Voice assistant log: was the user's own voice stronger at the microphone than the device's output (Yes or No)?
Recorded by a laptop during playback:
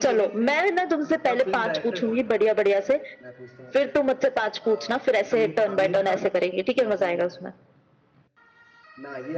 No